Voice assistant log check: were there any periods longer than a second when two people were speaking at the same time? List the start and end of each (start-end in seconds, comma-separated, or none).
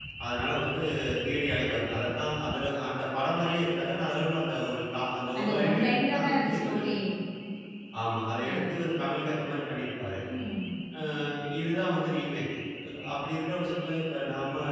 5.4-6.8